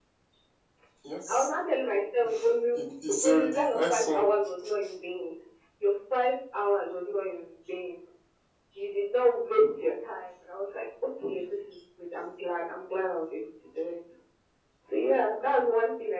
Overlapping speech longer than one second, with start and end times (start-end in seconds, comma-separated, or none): 2.8-4.3